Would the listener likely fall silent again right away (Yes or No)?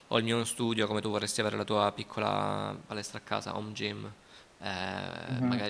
Yes